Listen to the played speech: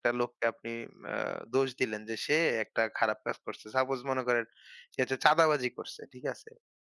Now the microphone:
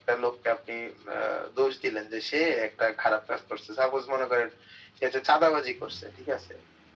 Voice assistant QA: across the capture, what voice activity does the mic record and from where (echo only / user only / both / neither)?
echo only